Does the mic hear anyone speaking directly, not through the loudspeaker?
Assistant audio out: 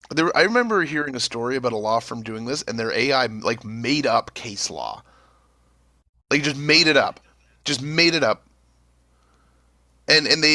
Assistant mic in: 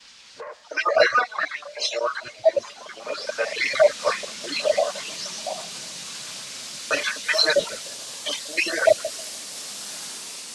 No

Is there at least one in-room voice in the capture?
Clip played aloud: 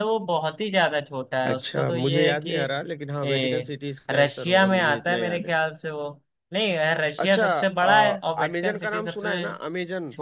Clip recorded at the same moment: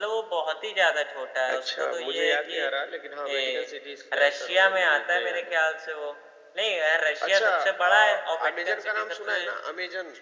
No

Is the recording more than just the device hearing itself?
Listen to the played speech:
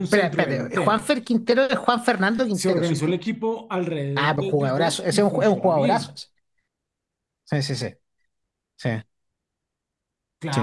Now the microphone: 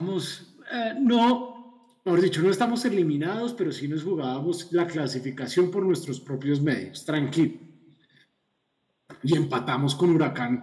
Yes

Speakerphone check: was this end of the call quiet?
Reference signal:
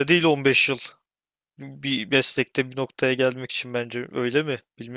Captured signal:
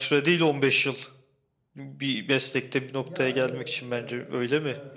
No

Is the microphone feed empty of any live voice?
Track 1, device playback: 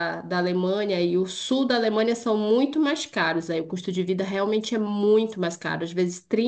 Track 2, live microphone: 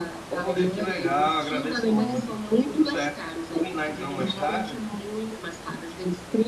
No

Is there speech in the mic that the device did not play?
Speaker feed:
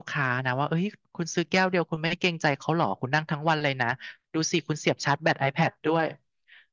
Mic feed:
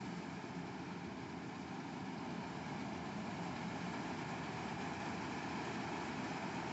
No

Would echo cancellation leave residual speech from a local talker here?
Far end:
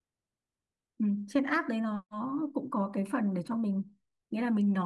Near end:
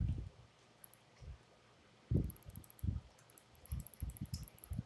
No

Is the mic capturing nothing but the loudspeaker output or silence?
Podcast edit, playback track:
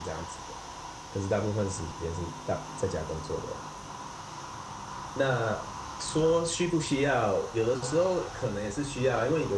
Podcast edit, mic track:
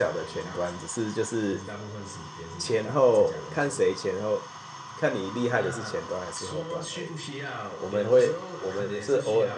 No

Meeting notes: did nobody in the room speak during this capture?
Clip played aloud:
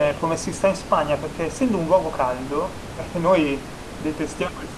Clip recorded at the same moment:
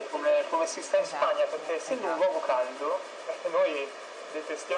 No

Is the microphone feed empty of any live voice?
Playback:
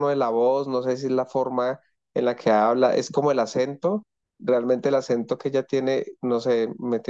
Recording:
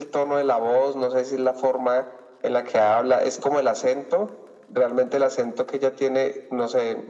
Yes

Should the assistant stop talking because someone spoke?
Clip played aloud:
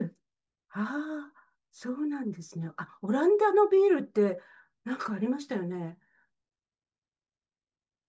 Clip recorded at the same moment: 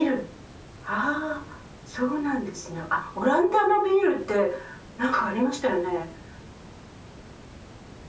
No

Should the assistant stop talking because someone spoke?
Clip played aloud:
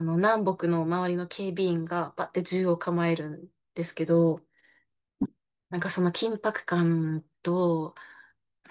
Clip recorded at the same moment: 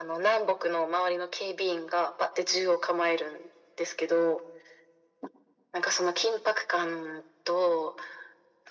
No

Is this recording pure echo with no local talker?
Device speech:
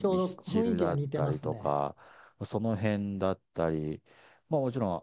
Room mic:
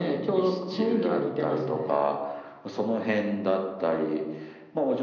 Yes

